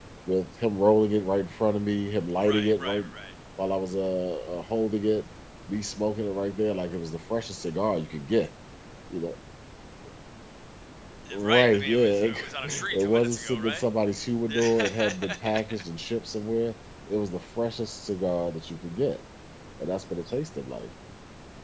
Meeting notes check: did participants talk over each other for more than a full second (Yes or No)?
Yes